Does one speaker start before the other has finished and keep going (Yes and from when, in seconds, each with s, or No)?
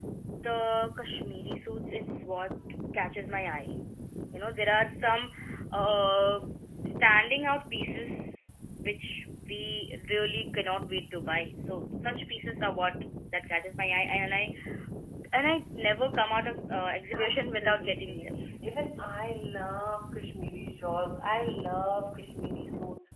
Yes, from 17.1 s